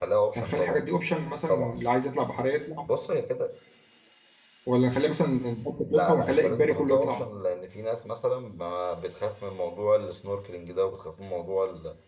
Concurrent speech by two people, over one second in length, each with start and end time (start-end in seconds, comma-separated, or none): 5.8-7.3